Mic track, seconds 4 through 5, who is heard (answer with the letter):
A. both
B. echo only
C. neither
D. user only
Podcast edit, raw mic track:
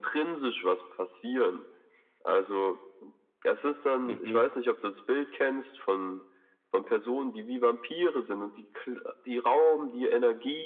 A